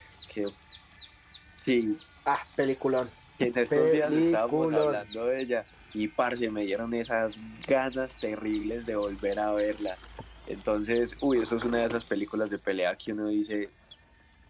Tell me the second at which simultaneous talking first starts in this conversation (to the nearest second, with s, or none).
4 s